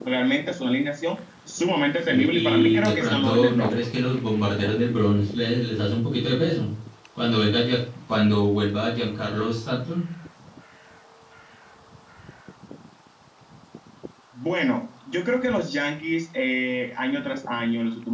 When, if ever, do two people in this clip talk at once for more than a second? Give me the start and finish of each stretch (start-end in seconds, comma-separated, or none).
2.1-3.7